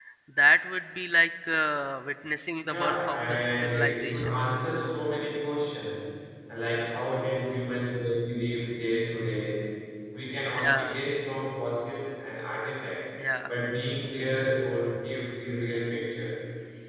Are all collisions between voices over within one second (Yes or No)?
No